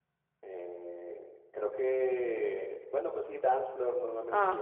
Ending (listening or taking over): taking over